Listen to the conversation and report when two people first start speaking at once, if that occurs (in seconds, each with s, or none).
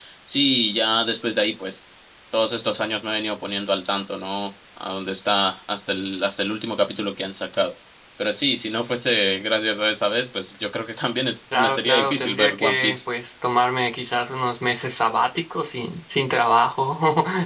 11.5 s